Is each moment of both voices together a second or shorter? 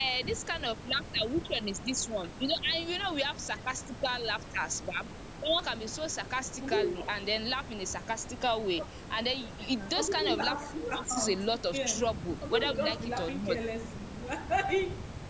No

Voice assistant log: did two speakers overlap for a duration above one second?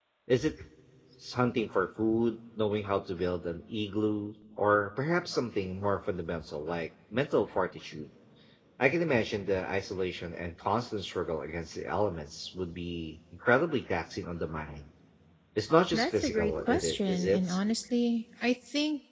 Yes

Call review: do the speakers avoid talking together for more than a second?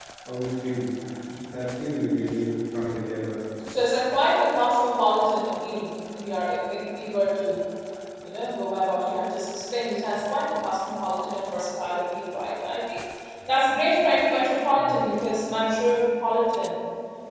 Yes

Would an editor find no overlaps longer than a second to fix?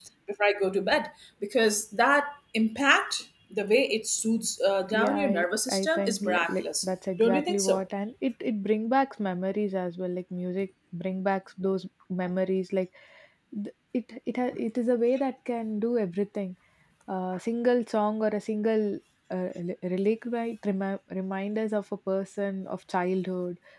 No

